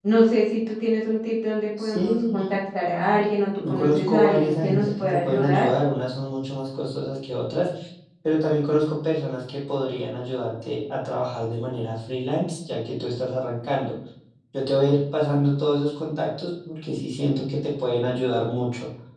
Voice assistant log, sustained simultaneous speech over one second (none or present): present